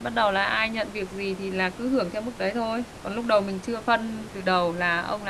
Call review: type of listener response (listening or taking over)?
listening